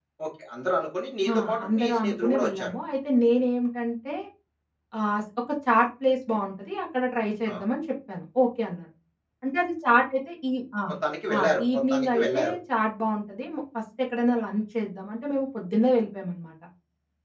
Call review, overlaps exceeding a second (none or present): present